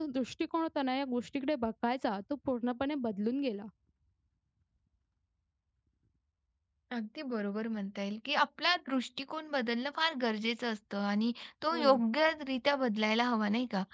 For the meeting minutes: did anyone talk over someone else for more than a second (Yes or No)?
No